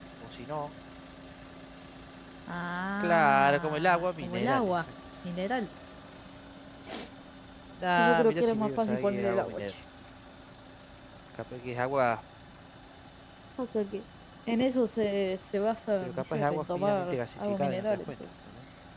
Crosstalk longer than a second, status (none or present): present